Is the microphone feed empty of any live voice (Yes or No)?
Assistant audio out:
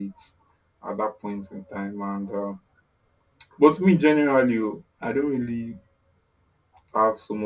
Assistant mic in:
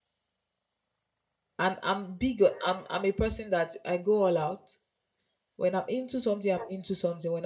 No